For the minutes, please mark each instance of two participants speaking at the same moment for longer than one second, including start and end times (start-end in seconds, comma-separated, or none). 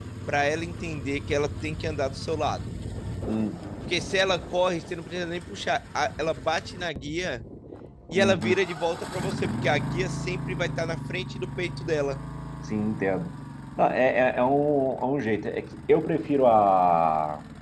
none